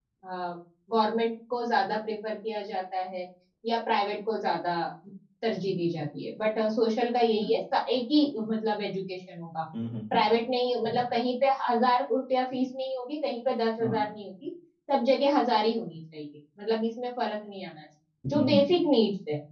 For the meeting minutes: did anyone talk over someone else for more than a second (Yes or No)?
No